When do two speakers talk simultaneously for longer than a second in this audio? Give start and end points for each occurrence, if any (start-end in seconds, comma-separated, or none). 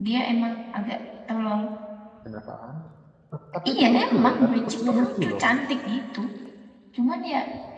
3.7-5.4